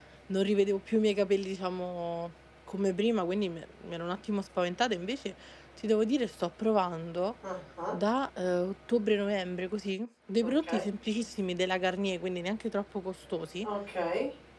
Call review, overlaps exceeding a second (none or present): none